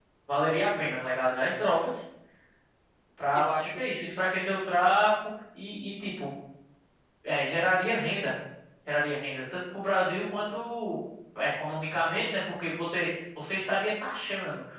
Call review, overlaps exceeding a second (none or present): present